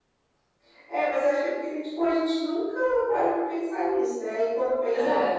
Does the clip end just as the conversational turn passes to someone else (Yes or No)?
No